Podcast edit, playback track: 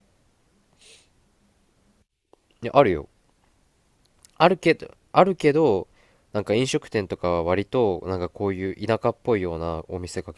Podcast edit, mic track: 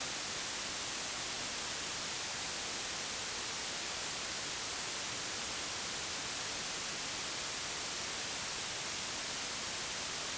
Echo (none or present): none